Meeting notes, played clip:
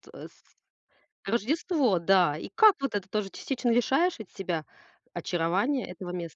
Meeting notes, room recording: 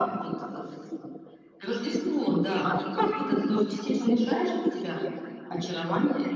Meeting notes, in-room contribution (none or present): none